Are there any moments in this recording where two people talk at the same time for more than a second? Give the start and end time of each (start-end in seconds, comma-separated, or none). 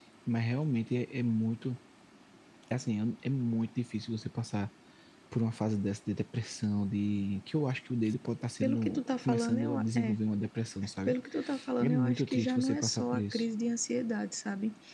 8.6-10.2, 11.8-13.4